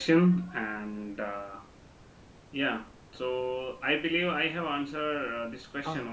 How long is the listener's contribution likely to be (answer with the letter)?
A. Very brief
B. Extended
B